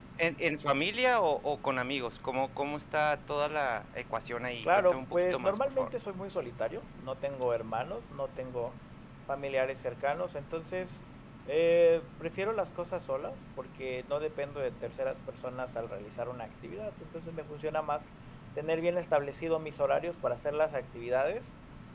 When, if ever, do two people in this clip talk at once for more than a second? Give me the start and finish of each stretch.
4.6-5.9

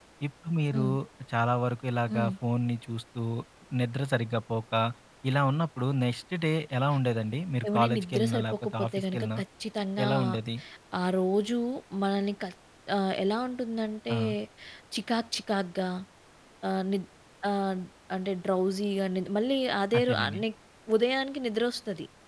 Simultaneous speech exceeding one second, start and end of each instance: 7.7-9.4

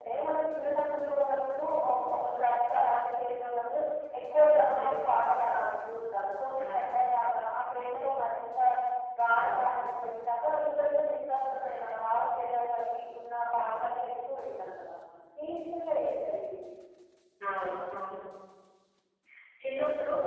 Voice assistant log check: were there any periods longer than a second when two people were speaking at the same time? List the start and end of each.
none

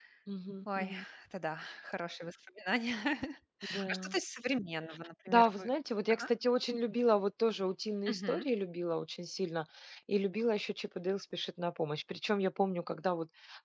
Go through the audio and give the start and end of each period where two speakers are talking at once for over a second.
none

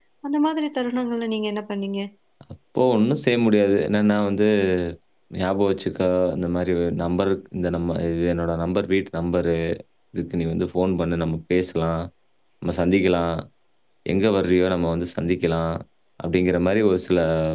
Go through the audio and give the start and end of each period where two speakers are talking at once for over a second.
none

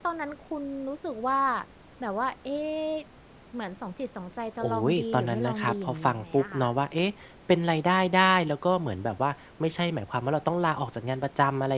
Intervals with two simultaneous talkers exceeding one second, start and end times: 4.6-6.7

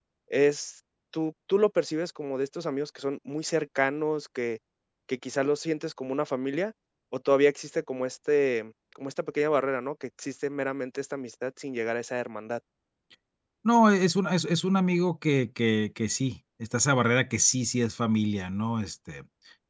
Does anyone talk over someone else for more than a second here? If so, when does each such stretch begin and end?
none

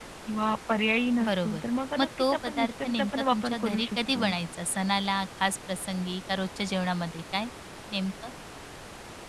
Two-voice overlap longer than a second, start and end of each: 2.0-4.3

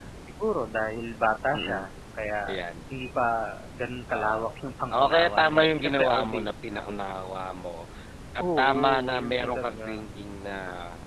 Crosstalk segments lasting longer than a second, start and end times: 4.9-6.5, 8.6-9.9

